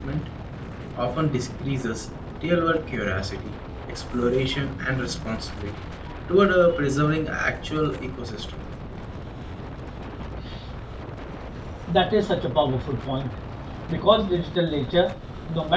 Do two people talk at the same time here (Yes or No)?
No